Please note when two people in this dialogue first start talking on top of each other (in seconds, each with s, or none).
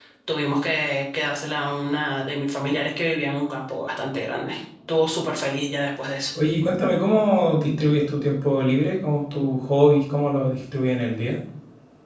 none